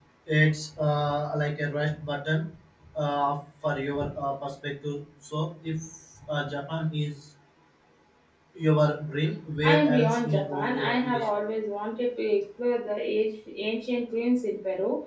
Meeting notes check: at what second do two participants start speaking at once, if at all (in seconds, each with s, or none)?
9.6 s